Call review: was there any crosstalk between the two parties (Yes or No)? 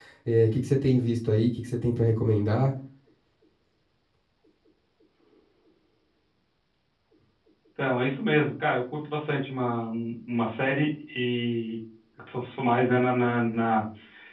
No